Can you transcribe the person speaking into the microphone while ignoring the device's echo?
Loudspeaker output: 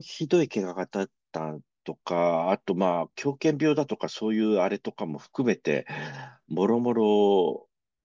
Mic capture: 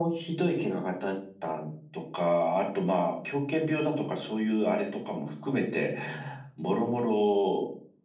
none

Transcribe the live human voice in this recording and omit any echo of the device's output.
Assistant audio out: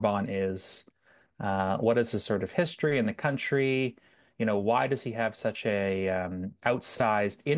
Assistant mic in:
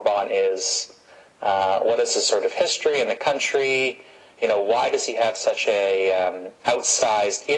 none

